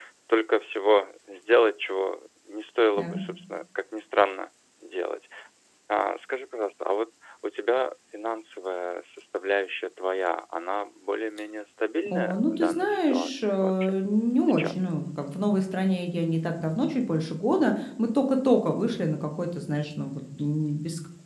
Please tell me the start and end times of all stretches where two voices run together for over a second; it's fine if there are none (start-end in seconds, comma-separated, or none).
12.1-13.9